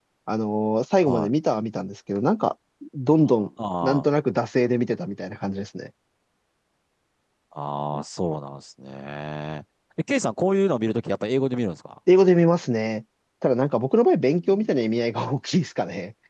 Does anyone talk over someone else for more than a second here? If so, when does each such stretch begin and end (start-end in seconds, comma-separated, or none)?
none